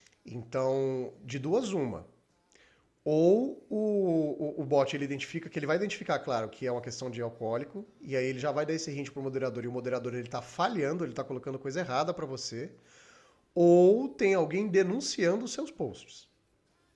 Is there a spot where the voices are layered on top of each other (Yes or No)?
No